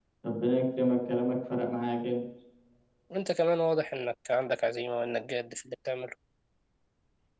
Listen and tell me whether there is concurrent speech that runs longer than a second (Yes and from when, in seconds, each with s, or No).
No